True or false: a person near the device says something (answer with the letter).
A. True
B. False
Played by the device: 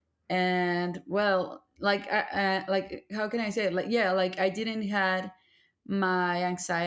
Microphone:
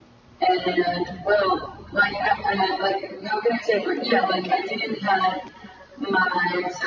B